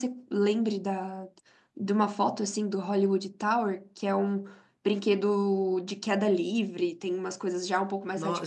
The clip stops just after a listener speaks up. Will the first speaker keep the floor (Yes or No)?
No